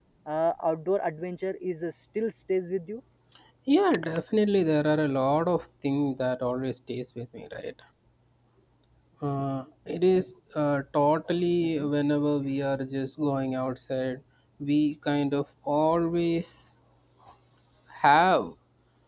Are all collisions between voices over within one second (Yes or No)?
Yes